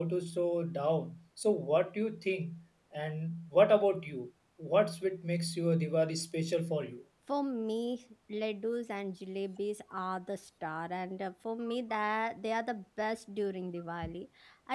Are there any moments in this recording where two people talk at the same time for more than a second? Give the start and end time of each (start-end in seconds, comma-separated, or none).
none